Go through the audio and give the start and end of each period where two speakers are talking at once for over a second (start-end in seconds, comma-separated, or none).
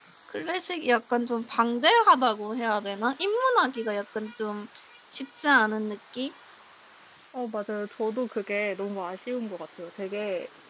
none